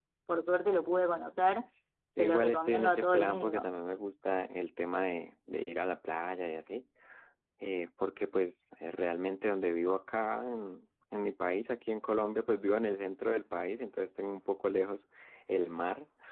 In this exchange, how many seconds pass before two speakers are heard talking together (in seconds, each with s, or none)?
2.2 s